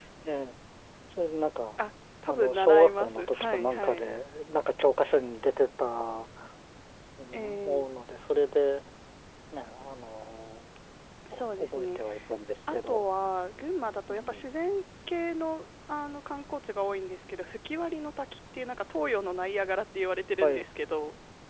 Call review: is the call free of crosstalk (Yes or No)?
No